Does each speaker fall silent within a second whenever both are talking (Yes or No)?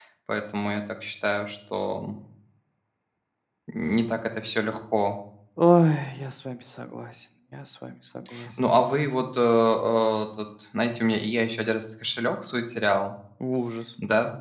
Yes